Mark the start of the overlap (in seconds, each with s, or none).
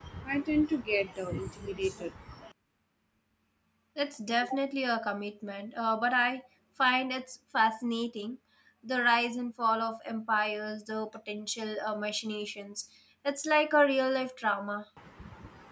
none